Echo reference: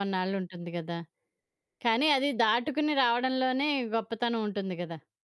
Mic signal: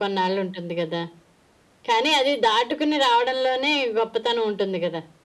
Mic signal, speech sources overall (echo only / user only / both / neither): echo only